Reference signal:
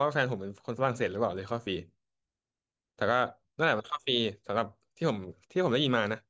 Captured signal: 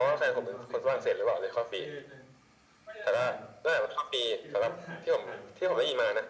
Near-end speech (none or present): present